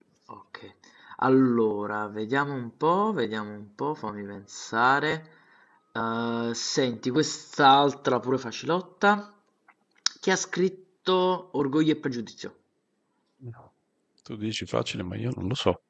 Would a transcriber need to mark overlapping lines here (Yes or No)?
No